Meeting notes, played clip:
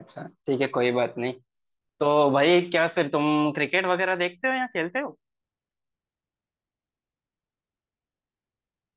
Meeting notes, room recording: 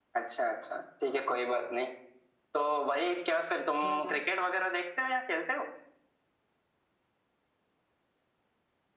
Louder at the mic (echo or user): echo